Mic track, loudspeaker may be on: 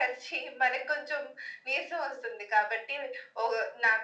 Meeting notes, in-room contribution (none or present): none